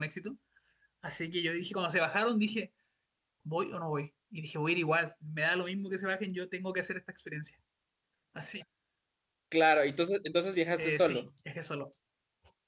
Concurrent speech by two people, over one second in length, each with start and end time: none

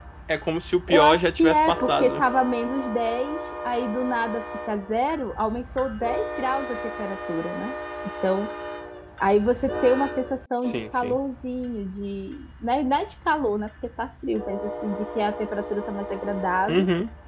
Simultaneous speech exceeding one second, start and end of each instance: 0.9-2.2

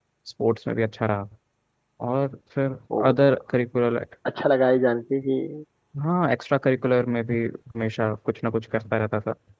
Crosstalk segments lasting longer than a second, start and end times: none

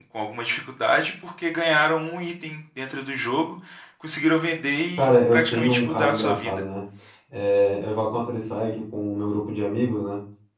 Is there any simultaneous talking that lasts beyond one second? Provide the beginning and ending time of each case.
5.0-6.5

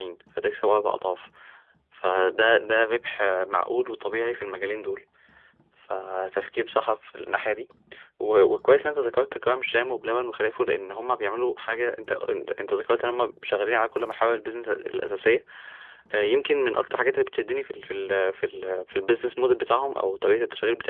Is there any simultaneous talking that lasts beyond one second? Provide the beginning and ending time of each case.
none

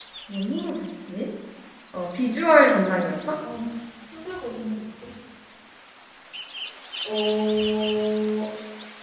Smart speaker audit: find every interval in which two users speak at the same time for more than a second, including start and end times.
none

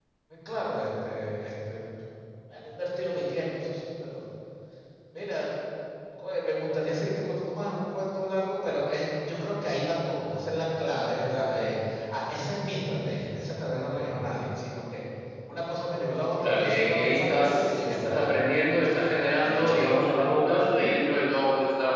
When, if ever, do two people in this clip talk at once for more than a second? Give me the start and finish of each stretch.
16.4-18.3

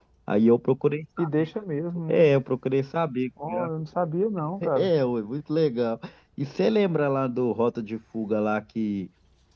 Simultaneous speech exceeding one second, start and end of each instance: none

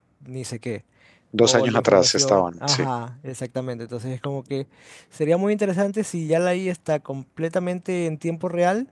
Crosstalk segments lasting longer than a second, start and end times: 1.4-2.9

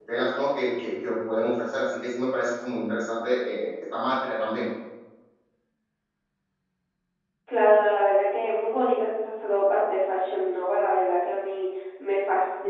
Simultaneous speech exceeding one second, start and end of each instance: none

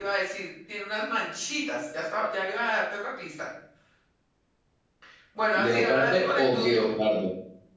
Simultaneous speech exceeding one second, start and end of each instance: 5.6-6.9

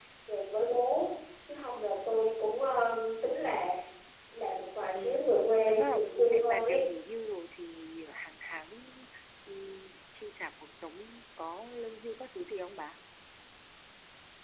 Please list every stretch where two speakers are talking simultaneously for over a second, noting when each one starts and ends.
5.0-6.8

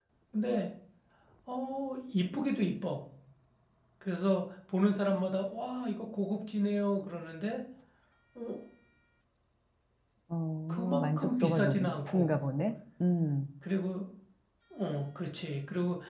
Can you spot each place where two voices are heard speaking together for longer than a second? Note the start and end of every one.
10.7-12.3

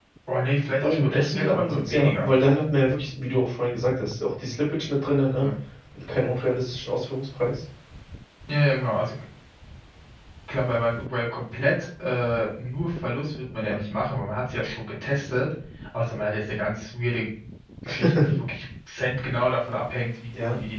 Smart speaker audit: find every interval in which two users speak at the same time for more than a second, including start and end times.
0.8-2.3

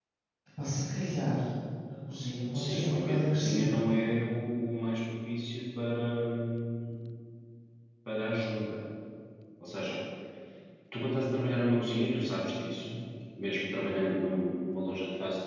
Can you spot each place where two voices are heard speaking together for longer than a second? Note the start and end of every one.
2.5-4.0

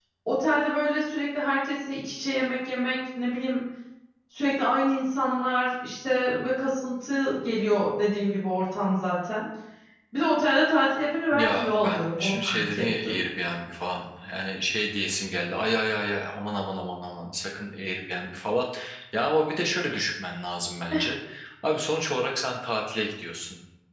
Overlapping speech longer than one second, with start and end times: 11.3-13.2

